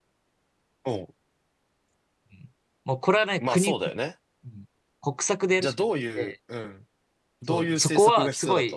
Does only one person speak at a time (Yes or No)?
No